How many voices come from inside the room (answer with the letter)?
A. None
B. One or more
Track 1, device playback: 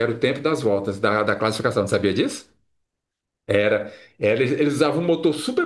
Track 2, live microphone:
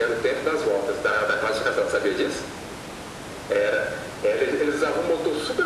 A